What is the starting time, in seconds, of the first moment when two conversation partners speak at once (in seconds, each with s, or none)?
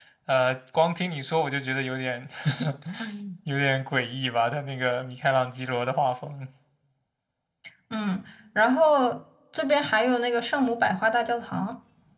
none